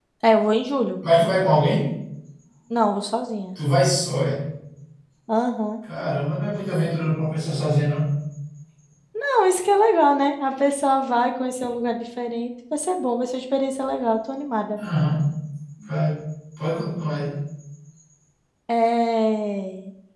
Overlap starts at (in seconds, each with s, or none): none